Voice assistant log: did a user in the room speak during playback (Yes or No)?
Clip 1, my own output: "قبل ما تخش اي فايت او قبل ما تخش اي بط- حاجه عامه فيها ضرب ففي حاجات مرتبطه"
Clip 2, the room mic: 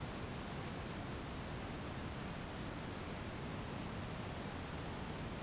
No